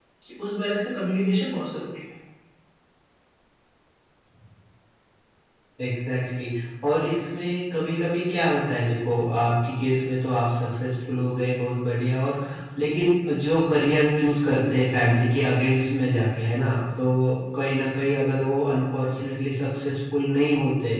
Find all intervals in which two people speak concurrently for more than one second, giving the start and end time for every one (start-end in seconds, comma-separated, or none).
none